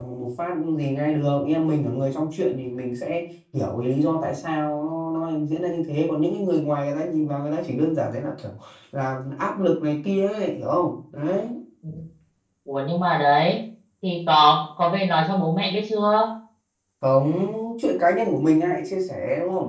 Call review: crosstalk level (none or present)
none